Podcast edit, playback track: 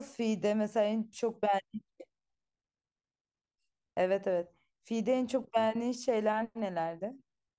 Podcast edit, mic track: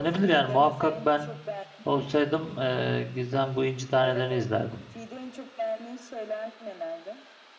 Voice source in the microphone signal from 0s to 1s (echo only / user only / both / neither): both